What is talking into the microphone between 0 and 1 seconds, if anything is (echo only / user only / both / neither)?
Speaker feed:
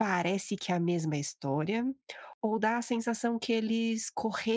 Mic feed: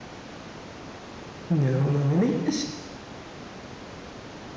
neither